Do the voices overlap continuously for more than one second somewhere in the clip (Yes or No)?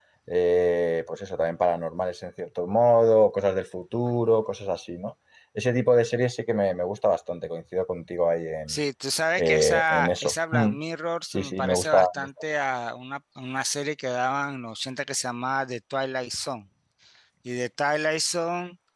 Yes